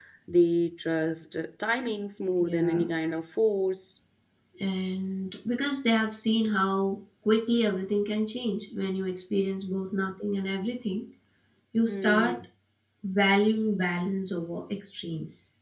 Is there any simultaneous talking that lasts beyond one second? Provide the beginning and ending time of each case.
none

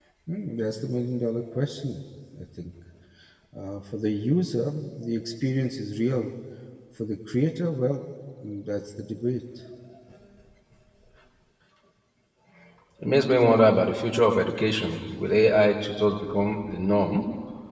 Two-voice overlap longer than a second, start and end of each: none

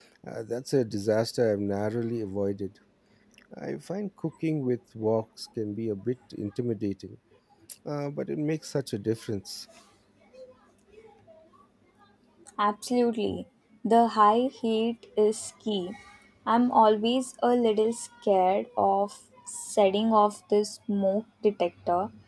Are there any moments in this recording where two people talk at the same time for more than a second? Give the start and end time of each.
none

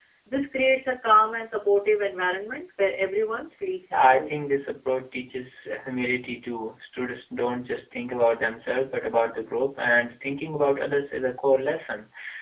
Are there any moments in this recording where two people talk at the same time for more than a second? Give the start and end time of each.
none

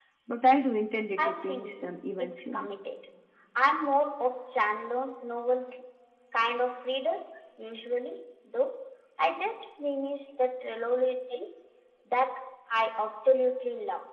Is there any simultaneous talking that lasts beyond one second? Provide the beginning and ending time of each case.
1.2-2.7

